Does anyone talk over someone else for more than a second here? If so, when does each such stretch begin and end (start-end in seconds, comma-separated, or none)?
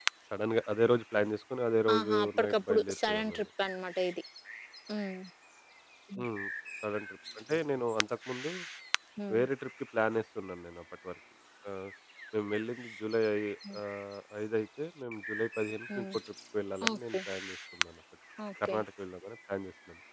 1.9-3.4